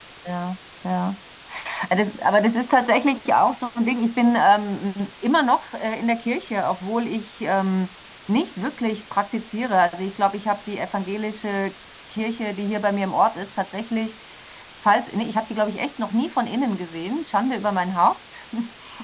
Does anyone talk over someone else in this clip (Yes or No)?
No